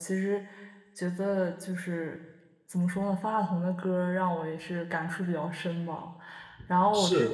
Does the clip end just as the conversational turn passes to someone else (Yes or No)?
No